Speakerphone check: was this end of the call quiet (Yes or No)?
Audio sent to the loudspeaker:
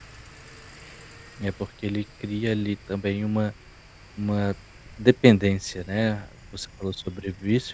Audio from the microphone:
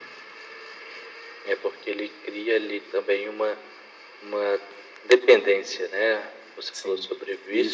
No